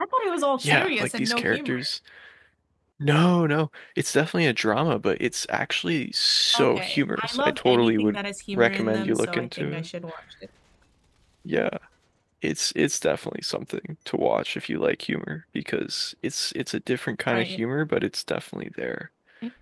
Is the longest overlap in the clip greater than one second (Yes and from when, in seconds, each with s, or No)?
Yes, from 0.6 s